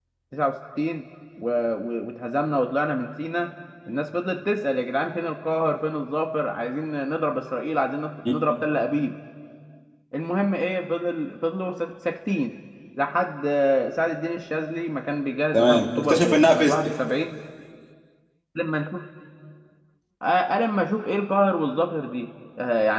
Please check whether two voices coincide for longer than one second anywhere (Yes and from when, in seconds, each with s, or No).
Yes, from 15.5 s